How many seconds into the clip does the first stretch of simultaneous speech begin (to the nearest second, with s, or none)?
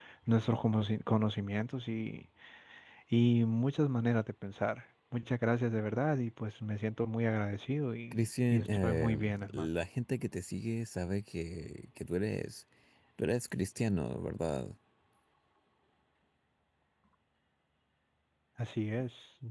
8 s